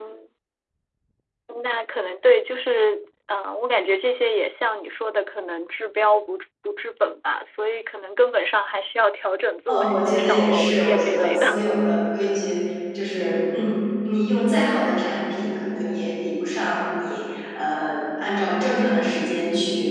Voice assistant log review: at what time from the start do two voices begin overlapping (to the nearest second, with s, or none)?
10 s